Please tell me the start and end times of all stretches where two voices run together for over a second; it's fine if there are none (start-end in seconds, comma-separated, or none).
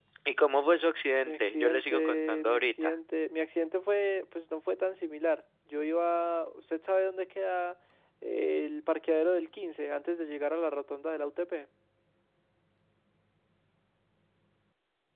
1.2-2.9